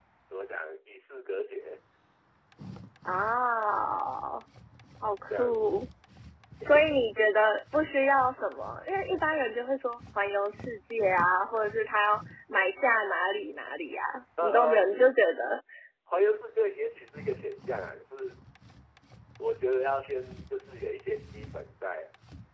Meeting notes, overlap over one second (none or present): none